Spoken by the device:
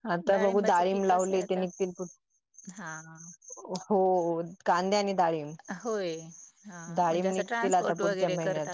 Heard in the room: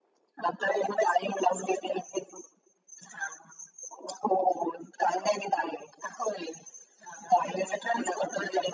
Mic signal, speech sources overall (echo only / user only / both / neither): echo only